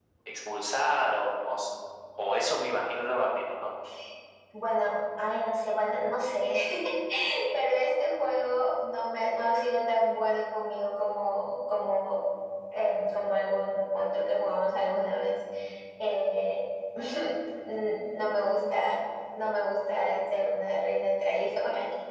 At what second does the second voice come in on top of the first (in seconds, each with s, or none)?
none